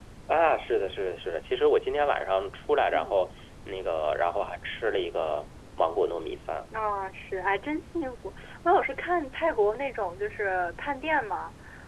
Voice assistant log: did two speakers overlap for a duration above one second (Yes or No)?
No